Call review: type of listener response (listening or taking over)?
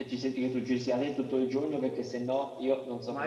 taking over